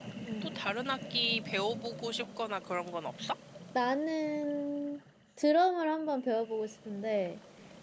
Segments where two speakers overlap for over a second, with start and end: none

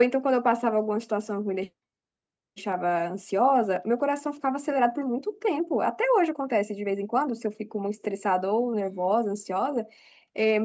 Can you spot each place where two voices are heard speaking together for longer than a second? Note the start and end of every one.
none

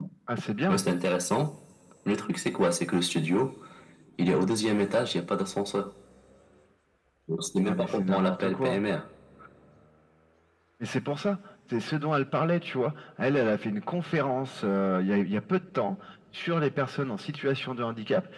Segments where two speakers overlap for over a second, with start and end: 7.6-8.8

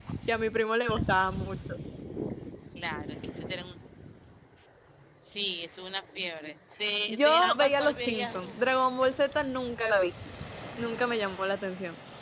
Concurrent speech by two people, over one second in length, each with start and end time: 7.1-8.6

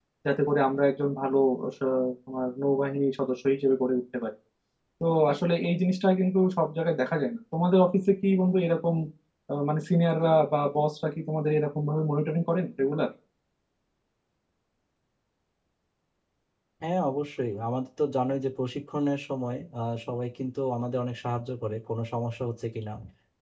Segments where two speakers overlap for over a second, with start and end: none

